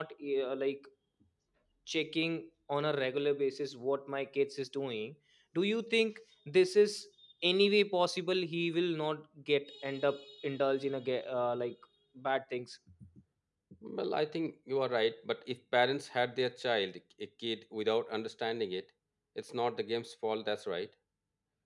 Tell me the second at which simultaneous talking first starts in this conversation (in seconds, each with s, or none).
none